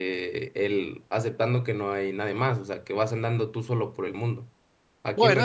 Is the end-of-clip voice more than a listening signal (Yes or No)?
Yes